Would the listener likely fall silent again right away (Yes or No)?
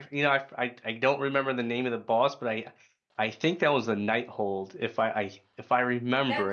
No